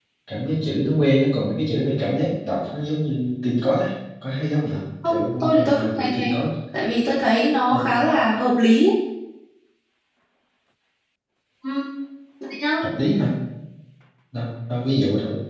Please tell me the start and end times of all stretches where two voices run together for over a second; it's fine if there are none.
5.0-6.3

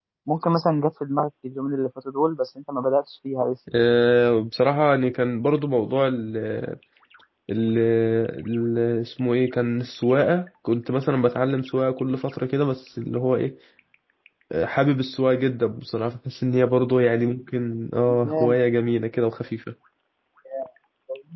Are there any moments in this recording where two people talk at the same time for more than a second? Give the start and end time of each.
none

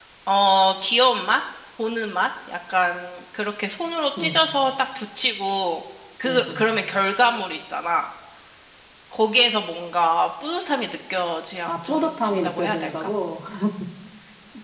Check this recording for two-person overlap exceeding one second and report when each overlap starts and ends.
11.7-13.1

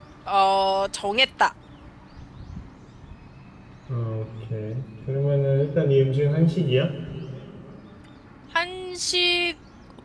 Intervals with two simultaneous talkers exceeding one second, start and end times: none

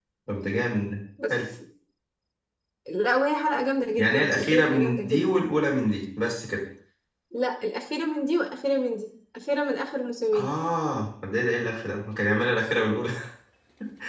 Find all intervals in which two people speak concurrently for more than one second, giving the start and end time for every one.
4.0-5.3

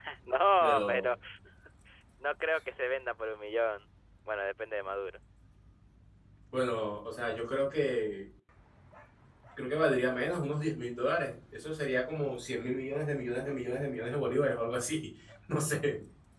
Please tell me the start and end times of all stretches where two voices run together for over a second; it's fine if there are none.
none

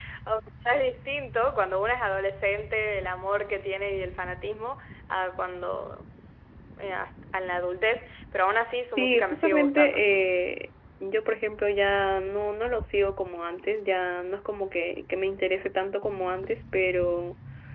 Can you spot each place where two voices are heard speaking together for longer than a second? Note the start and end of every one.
8.8-10.4

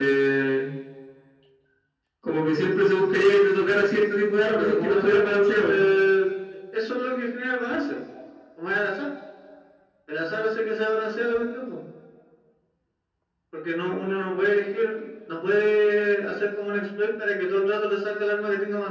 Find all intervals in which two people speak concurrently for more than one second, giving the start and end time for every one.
4.4-5.8

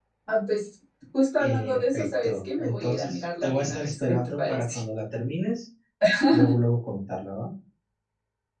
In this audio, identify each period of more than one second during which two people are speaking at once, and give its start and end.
1.4-4.8

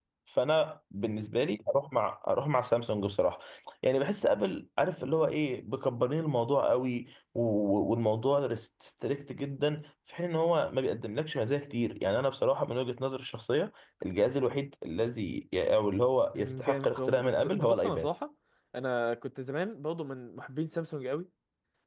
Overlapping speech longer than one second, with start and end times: 16.3-18.1

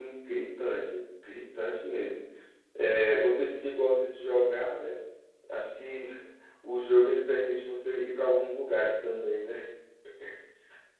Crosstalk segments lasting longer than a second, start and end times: none

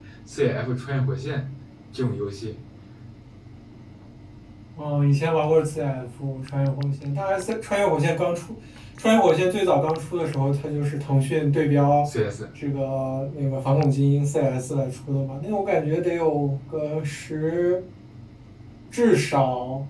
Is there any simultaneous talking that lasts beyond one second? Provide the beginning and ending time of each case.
none

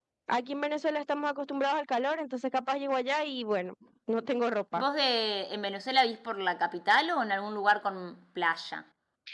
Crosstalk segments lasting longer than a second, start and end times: none

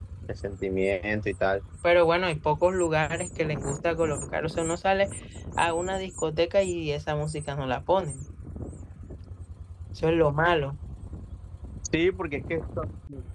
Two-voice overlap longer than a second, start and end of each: none

